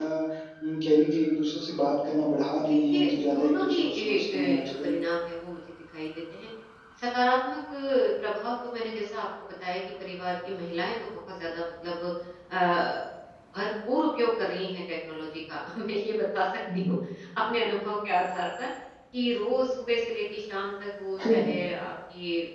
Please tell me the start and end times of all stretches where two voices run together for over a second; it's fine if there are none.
2.7-4.9

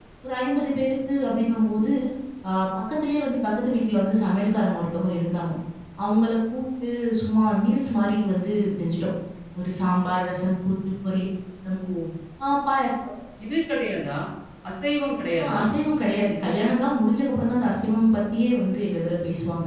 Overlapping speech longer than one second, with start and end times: none

